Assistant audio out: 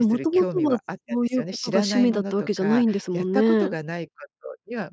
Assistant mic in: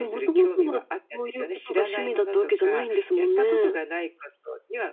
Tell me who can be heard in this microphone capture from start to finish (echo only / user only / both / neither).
echo only